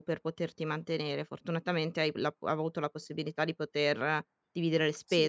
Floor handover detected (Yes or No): Yes